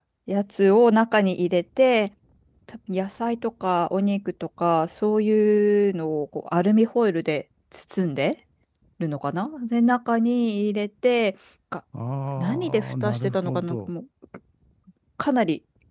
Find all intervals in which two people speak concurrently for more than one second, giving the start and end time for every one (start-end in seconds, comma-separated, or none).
12.4-13.9